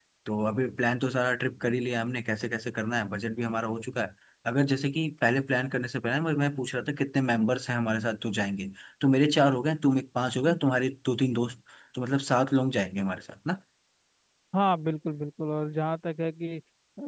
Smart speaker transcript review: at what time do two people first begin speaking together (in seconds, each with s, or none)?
none